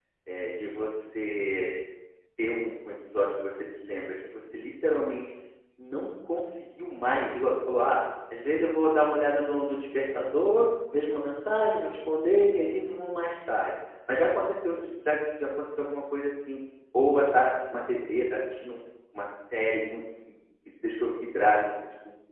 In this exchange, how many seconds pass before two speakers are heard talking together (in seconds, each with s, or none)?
none